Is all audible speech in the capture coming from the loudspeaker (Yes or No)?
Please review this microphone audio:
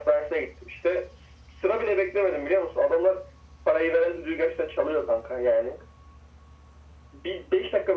Yes